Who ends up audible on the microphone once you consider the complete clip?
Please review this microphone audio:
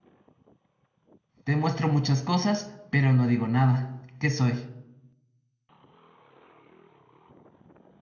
user only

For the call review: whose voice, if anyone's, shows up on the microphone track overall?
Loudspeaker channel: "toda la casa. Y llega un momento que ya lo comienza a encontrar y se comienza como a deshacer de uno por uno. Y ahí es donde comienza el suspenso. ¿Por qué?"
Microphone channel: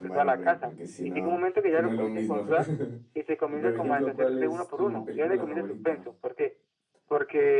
both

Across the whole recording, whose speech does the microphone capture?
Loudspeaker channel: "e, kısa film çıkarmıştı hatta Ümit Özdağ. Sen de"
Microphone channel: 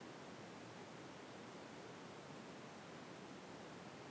neither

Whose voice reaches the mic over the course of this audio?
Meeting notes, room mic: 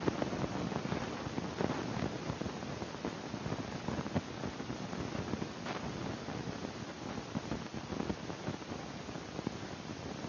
neither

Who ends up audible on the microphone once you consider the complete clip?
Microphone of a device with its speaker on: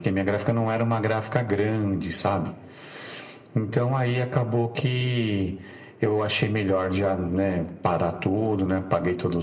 echo only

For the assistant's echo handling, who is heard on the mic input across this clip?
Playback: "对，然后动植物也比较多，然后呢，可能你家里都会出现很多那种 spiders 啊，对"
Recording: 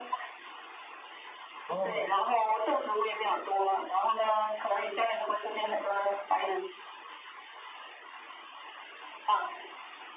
both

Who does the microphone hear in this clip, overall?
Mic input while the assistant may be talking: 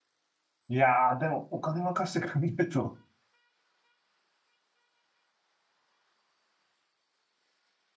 user only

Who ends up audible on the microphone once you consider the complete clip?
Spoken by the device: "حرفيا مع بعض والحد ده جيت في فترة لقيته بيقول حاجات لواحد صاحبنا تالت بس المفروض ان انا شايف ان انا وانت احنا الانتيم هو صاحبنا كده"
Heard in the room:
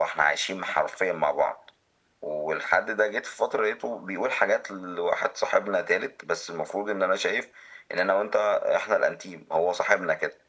echo only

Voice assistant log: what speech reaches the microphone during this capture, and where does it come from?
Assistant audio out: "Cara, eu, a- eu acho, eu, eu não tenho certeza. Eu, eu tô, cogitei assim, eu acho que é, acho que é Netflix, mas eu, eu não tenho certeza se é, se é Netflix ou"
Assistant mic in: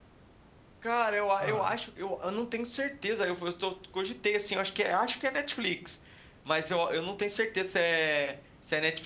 both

